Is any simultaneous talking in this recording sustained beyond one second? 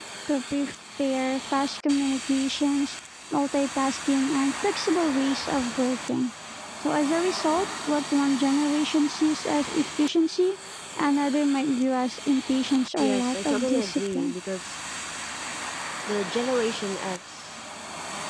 Yes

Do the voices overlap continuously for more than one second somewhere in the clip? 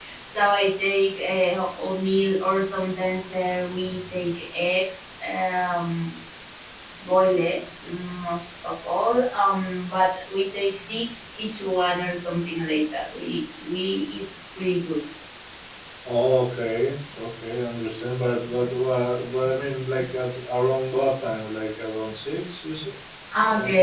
No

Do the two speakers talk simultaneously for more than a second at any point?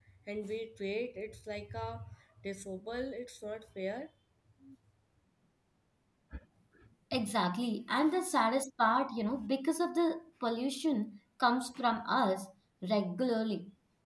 No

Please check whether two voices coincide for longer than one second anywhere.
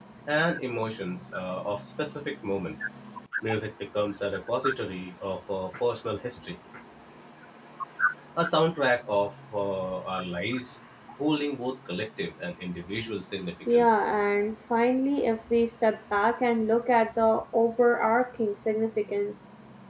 No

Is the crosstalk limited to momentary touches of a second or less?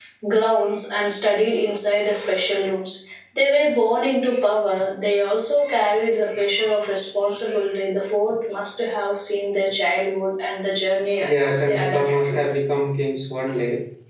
No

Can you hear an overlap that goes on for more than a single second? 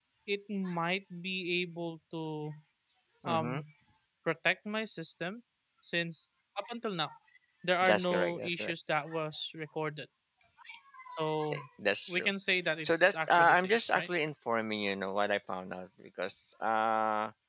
Yes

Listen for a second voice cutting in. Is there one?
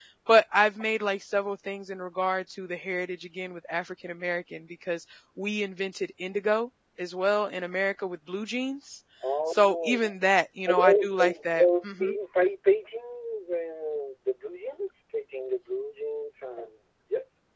Yes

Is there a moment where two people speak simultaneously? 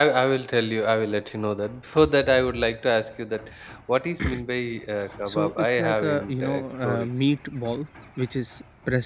Yes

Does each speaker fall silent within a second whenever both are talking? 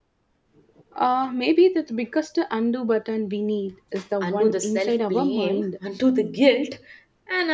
No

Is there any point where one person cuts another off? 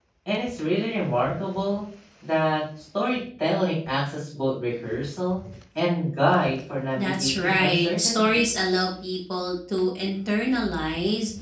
Yes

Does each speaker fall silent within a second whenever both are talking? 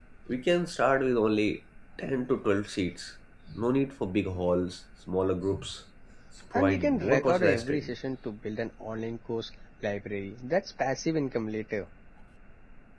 No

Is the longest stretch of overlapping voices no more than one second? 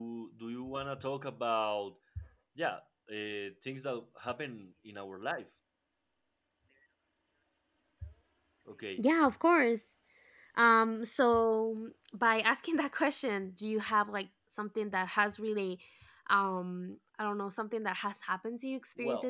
Yes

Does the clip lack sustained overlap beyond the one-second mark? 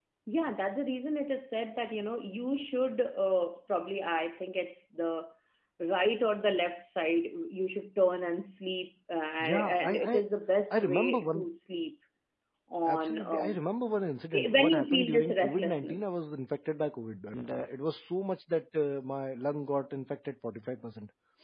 No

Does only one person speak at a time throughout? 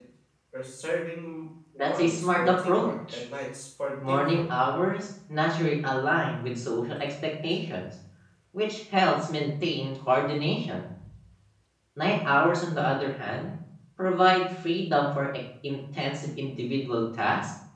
No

